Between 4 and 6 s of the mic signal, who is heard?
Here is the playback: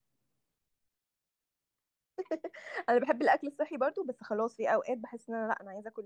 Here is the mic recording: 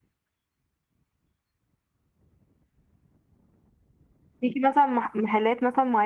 user only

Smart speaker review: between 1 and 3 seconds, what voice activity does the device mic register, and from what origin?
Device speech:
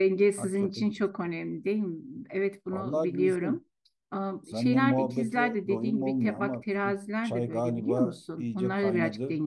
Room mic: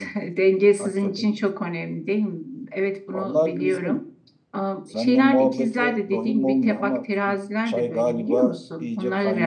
echo only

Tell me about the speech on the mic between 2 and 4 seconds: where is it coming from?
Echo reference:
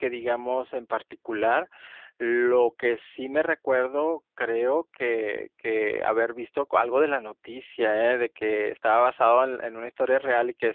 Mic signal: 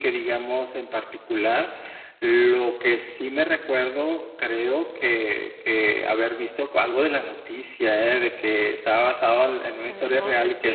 echo only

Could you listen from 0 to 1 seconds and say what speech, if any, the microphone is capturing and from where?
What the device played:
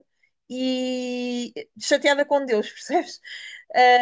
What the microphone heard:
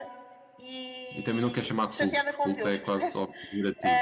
echo only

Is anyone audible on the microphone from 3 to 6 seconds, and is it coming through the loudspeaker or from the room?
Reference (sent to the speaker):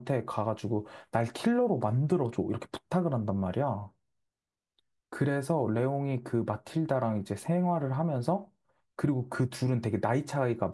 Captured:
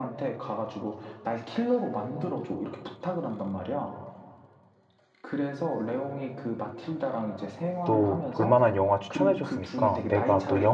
echo only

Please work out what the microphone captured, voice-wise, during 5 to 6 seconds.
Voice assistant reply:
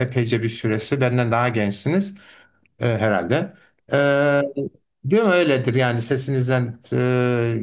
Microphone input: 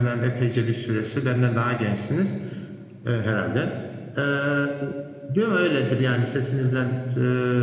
echo only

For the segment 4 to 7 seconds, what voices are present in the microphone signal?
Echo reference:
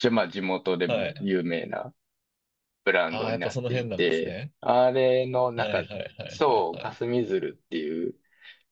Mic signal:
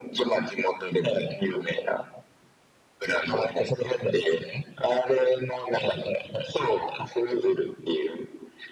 echo only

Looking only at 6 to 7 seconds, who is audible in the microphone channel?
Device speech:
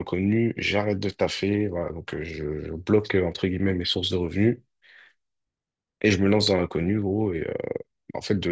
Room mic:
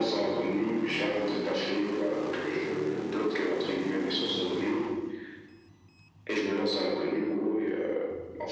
echo only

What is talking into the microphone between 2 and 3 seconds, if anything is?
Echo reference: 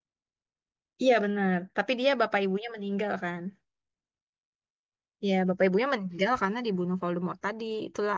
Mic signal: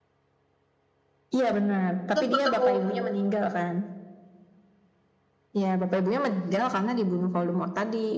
both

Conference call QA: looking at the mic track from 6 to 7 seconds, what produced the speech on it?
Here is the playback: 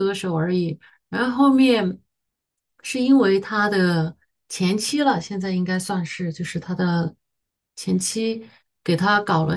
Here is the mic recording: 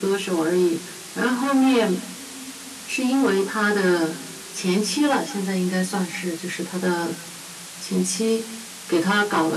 echo only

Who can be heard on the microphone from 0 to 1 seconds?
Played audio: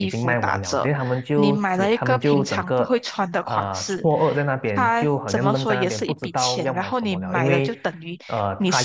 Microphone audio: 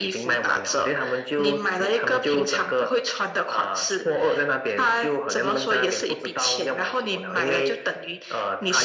echo only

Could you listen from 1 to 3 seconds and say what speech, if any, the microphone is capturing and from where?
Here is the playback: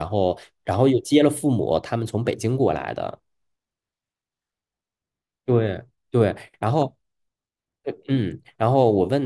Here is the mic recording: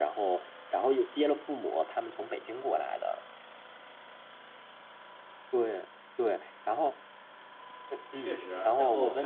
echo only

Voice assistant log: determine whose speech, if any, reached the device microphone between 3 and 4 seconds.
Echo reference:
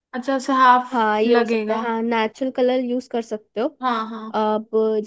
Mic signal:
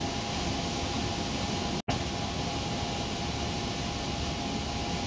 neither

